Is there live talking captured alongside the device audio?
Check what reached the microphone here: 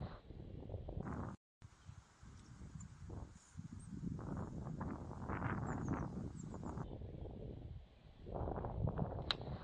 No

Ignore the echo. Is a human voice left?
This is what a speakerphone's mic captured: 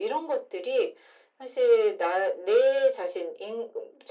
No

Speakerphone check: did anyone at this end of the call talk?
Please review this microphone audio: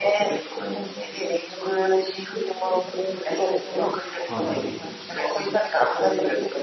Yes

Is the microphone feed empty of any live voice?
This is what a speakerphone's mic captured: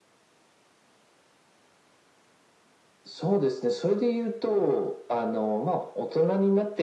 Yes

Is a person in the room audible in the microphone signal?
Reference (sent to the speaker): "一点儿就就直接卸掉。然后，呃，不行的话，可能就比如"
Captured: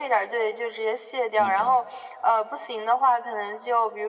Yes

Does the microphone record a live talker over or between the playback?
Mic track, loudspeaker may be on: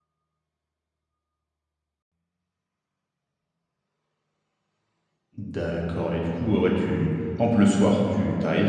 Yes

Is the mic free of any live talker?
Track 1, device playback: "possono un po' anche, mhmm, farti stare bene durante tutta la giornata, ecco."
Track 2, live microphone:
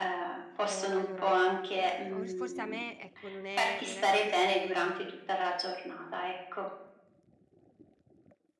No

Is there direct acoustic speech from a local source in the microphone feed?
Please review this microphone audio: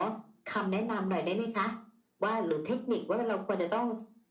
No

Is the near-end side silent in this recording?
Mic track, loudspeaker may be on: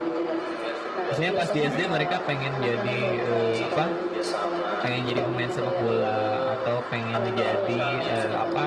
No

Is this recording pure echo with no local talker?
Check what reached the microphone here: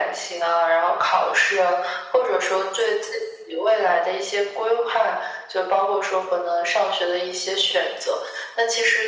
Yes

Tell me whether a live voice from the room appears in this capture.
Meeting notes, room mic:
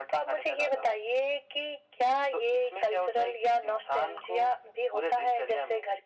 No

